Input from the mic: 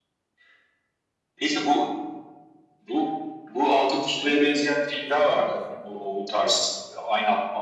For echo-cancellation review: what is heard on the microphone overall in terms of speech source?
both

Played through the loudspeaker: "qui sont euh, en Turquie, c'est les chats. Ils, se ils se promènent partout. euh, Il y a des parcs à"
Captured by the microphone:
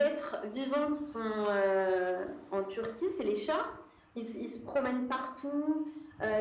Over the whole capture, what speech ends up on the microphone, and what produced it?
echo only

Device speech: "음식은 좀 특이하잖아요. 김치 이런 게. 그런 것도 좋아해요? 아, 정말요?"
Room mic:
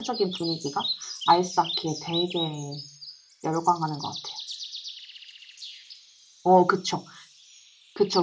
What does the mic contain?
user only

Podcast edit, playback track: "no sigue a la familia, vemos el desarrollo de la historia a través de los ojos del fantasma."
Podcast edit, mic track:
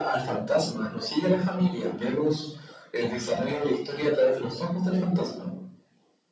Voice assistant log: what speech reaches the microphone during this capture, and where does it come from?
echo only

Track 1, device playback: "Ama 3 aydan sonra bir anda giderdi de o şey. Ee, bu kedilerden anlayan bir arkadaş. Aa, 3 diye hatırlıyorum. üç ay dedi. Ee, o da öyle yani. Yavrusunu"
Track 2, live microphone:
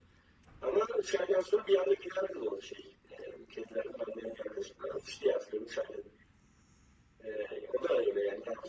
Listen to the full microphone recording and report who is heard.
echo only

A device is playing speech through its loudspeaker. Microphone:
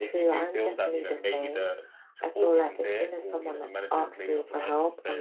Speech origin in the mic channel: echo only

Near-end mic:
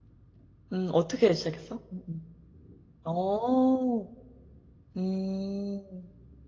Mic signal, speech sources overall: user only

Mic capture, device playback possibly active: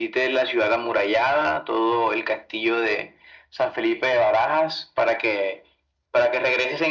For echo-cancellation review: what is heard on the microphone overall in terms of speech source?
echo only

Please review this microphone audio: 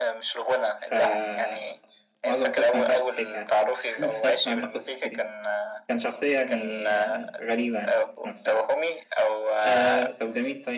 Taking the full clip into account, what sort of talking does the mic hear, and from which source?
both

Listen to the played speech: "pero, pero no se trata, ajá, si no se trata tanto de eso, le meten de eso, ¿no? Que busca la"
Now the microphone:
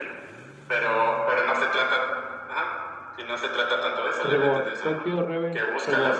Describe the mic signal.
both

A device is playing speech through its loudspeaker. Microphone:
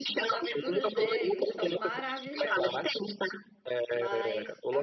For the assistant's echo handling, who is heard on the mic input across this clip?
both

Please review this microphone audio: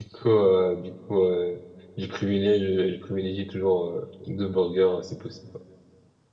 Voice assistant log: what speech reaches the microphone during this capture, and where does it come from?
user only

